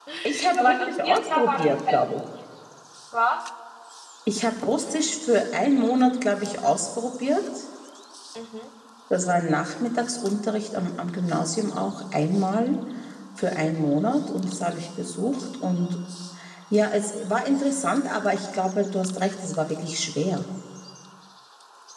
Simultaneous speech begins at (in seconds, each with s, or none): 0.5 s